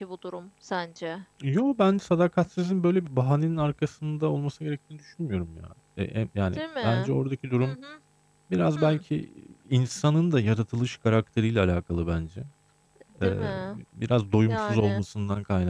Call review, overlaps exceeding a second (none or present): none